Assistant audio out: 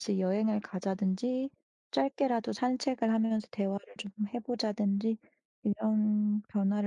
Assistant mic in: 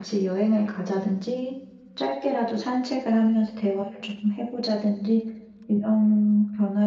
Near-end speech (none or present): none